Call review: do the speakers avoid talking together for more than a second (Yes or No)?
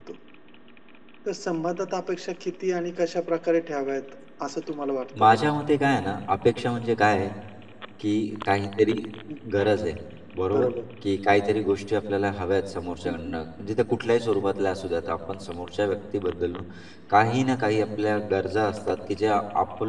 Yes